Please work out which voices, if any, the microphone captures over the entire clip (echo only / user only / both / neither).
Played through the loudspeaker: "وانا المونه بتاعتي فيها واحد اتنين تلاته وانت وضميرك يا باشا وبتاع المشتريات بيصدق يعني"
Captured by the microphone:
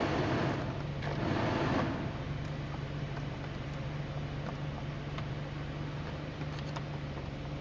neither